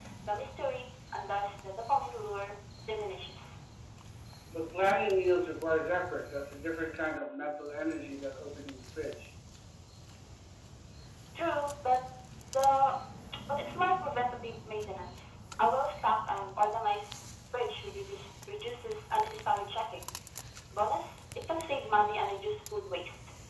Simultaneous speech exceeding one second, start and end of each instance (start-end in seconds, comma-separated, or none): none